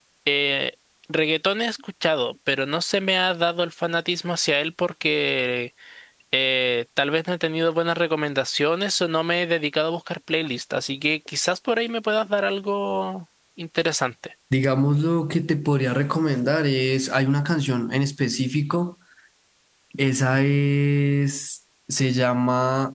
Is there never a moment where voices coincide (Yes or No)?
Yes